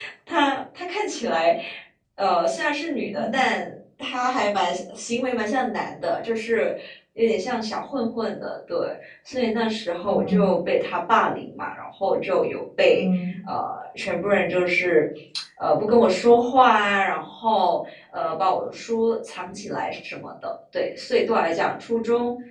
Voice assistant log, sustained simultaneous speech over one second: none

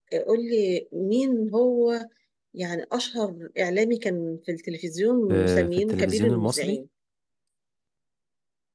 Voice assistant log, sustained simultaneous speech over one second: present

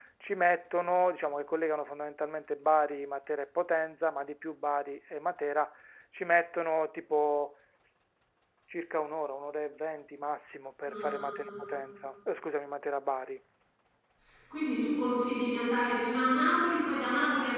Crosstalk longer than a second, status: none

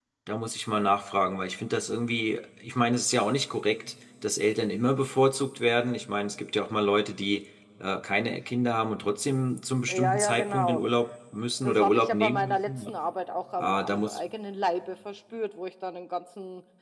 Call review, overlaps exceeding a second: present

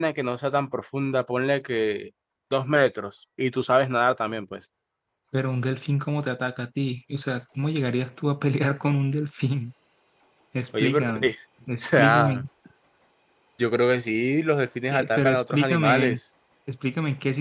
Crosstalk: present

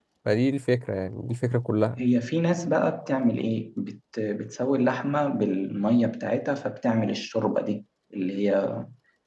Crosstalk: none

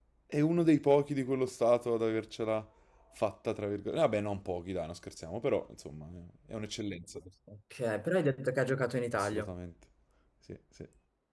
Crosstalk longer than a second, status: none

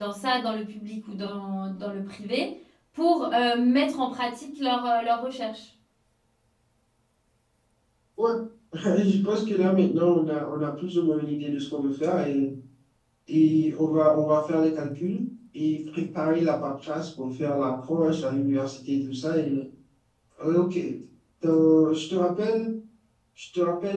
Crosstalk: none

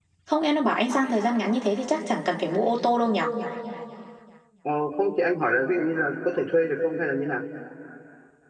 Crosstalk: none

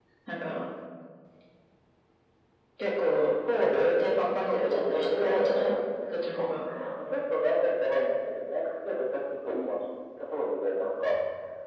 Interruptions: present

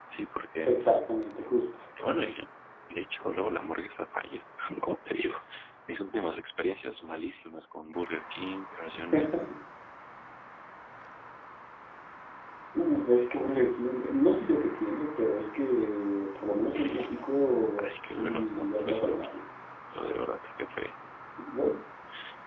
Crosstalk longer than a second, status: present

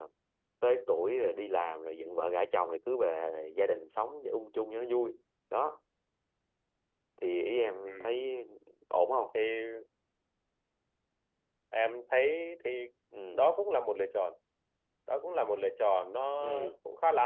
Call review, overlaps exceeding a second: none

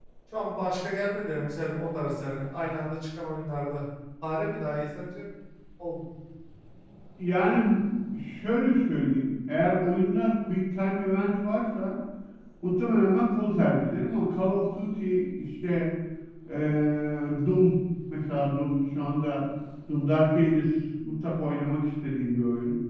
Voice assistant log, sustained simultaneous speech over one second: none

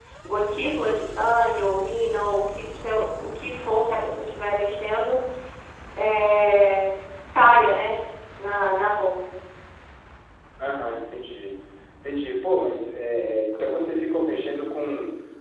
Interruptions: none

